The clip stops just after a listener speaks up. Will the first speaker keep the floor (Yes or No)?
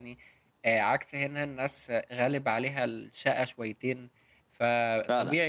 Yes